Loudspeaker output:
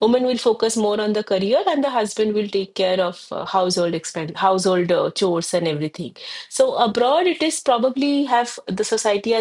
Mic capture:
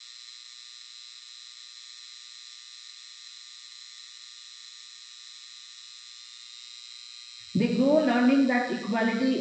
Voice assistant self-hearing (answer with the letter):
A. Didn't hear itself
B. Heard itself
A